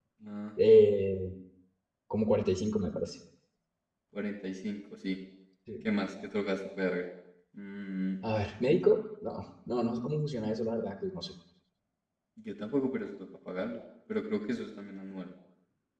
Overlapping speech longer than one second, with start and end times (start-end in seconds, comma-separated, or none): none